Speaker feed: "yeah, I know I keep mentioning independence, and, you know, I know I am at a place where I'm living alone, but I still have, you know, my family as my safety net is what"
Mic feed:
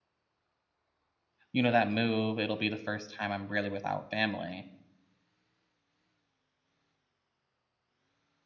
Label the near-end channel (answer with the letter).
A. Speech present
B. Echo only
A